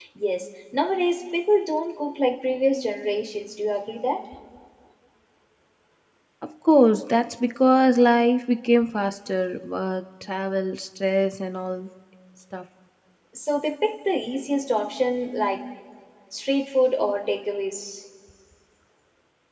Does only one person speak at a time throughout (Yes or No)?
Yes